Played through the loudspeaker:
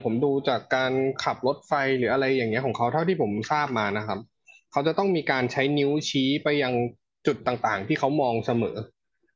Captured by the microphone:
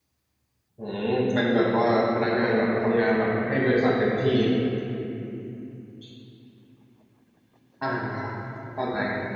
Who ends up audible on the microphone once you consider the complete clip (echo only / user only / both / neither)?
user only